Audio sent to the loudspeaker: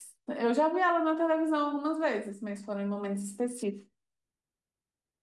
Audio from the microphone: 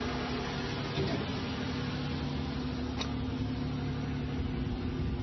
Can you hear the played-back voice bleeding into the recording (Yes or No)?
No